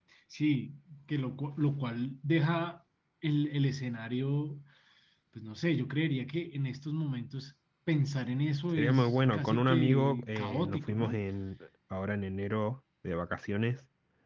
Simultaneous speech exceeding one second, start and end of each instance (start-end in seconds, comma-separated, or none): 8.8-11.2